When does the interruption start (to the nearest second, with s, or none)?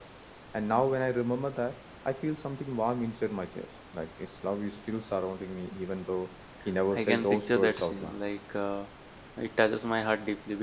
7 s